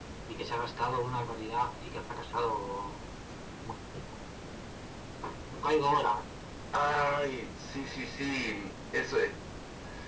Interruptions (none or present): none